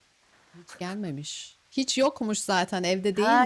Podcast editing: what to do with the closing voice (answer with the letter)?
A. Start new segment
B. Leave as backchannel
A